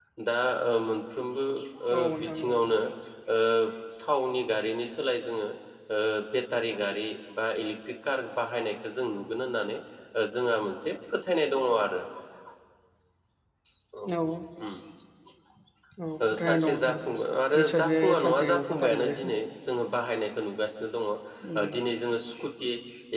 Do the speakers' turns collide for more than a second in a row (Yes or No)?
Yes